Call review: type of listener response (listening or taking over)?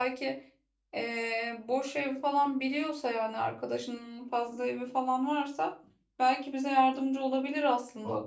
taking over